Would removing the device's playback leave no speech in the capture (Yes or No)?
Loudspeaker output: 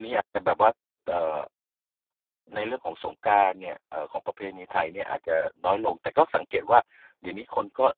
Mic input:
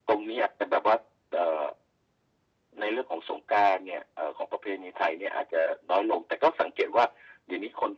Yes